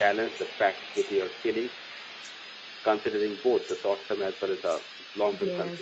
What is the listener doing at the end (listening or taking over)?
taking over